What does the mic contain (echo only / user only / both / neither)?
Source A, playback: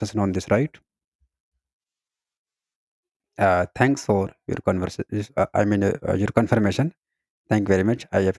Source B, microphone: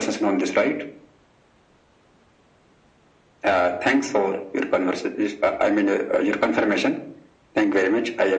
echo only